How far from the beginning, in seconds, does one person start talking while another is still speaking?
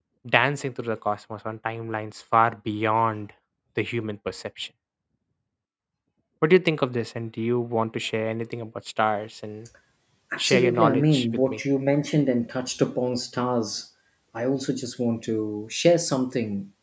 10 s

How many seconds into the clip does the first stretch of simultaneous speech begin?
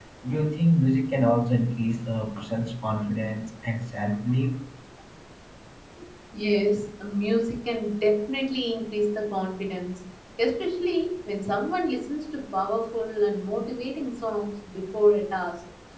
none

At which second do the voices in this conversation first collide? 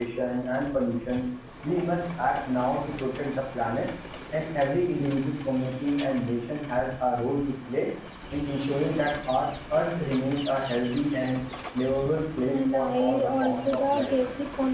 12 s

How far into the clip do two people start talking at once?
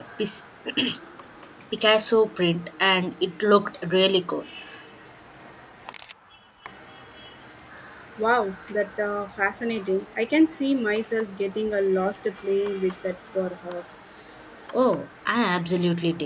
none

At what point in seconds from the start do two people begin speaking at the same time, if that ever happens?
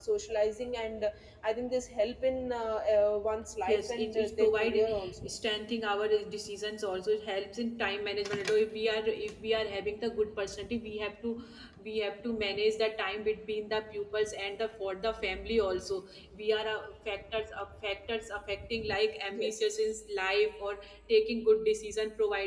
4 s

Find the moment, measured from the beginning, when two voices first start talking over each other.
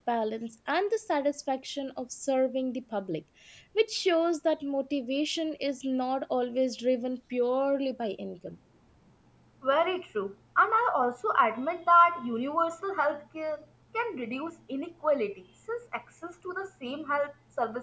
none

